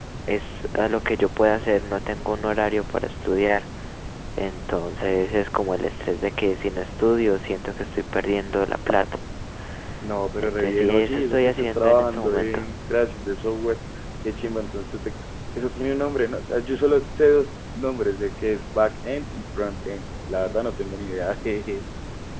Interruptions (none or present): present